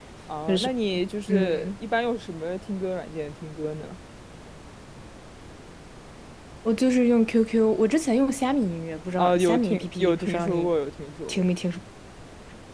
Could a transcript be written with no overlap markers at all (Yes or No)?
No